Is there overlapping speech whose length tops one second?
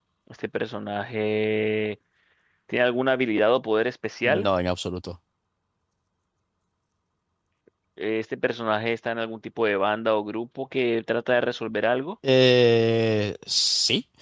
No

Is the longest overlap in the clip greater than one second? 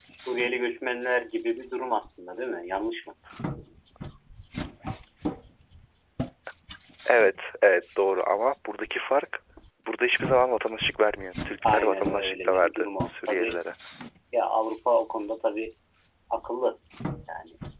Yes, from 11.6 s

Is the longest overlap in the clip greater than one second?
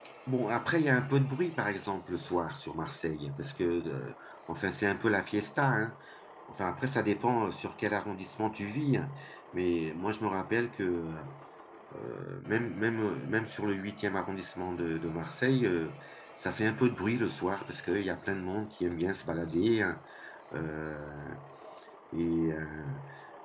No

